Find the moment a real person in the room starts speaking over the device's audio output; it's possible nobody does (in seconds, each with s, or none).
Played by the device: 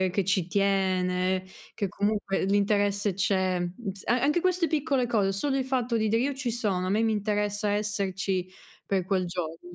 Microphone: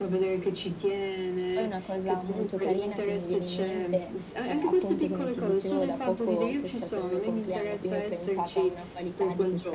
1.5 s